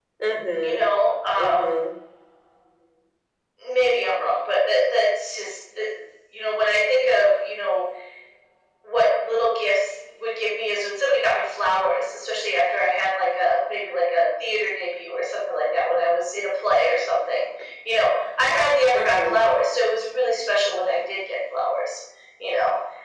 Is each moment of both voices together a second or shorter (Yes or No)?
Yes